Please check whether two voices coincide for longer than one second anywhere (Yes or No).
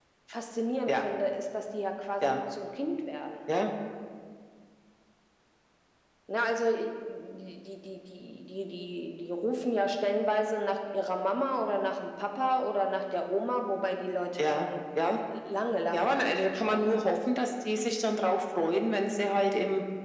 Yes